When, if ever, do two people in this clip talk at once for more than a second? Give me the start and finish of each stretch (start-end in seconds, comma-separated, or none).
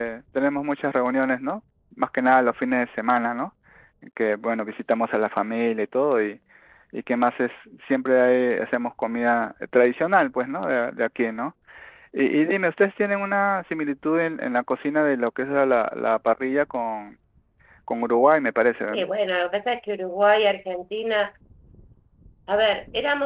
none